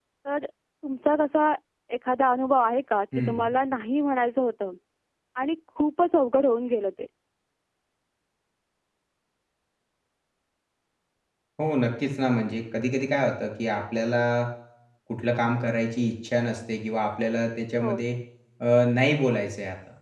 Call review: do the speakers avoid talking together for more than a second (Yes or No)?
Yes